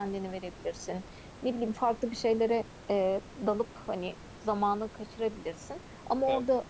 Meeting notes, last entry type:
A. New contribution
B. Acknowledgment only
B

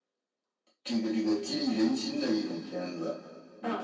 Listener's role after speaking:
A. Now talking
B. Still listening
A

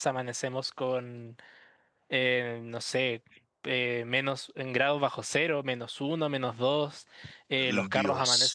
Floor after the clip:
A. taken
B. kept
B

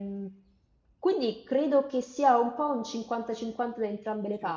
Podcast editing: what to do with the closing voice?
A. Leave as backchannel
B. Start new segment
A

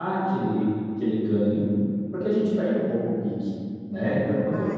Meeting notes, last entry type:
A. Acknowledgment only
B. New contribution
A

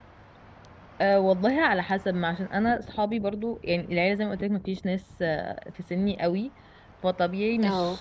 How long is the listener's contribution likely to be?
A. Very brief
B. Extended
A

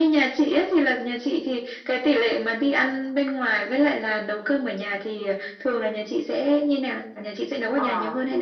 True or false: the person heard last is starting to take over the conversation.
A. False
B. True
B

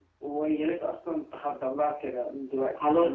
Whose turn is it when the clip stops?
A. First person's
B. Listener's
B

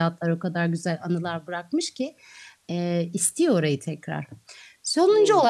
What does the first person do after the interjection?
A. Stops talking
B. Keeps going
B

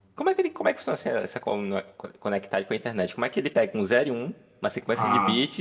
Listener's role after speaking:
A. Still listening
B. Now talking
A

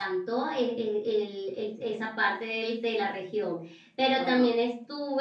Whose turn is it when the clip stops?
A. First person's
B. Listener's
A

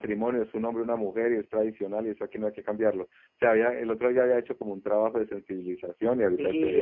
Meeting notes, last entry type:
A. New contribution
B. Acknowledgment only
A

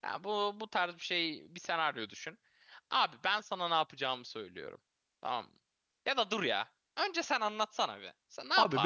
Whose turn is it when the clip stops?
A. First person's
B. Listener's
B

